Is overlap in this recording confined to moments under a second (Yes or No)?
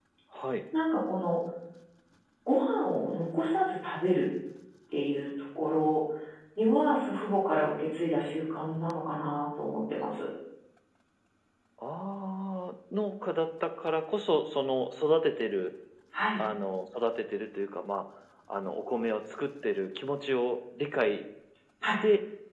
Yes